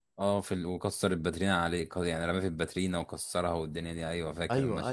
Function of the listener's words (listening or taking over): taking over